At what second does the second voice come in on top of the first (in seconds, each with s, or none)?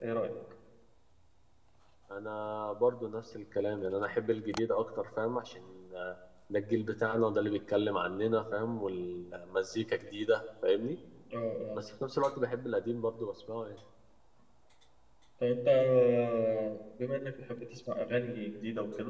none